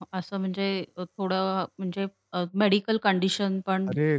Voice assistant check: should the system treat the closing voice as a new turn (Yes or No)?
Yes